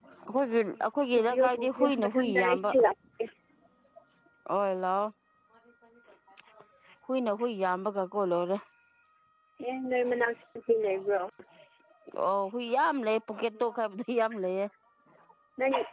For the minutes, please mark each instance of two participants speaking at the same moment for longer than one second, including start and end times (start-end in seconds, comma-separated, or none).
1.1-2.7